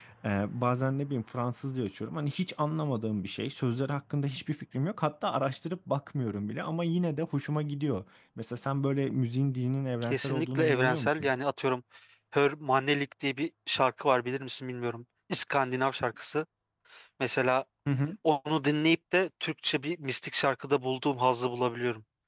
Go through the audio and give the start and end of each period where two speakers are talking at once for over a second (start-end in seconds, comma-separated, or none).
10.0-11.3